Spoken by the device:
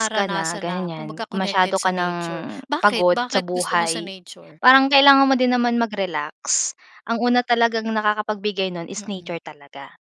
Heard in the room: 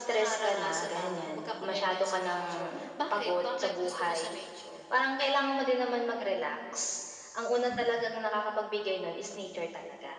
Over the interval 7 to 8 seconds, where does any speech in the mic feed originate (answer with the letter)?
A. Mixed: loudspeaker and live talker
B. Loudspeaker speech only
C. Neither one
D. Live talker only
A